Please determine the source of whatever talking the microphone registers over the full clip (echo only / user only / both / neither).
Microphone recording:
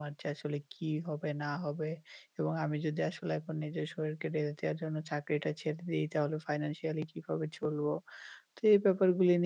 user only